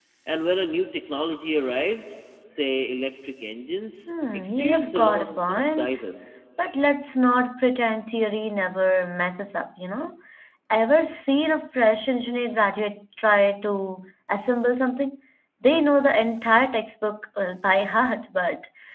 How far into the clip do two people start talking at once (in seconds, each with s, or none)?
4.1 s